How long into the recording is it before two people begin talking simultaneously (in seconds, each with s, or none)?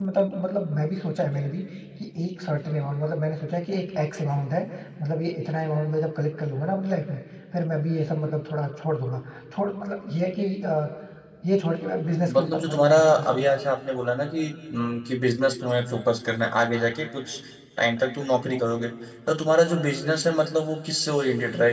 12.3 s